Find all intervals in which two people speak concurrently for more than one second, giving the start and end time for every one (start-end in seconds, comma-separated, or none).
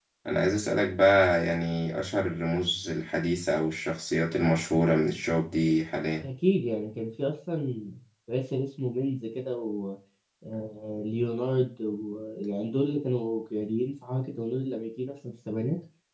none